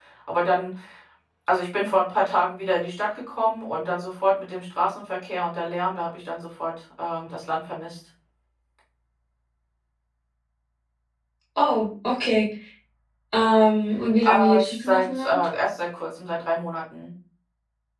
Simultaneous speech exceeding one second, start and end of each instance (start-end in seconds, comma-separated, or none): 14.2-15.4